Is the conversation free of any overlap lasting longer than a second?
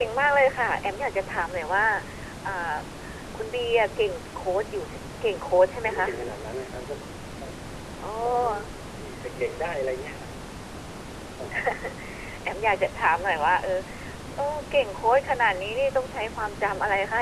Yes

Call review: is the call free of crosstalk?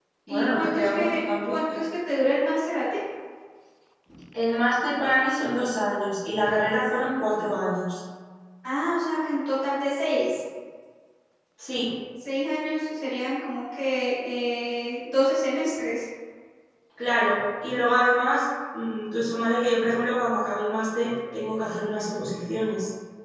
No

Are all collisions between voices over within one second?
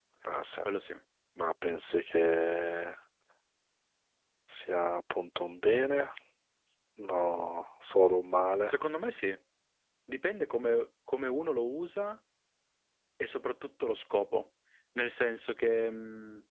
Yes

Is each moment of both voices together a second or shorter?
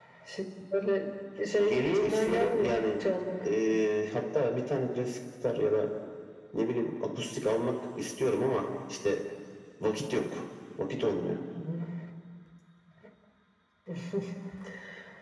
No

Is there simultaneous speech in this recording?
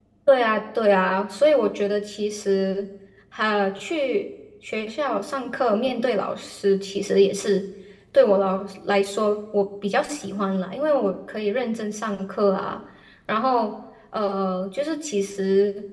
No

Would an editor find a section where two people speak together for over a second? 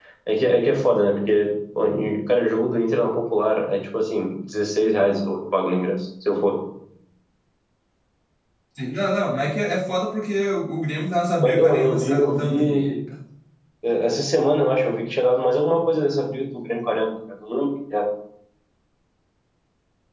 Yes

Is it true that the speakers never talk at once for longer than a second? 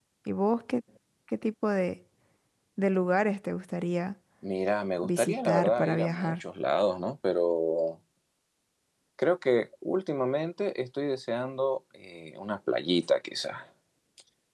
No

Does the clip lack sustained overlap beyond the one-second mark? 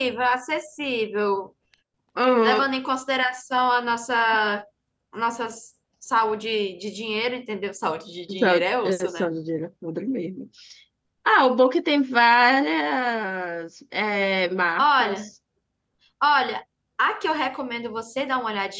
Yes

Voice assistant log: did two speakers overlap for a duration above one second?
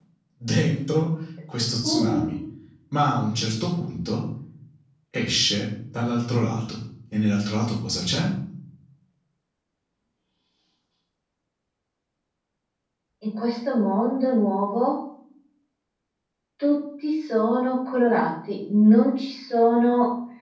No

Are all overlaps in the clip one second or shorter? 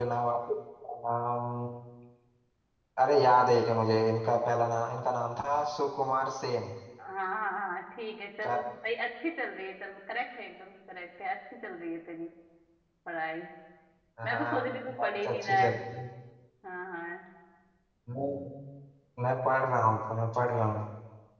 No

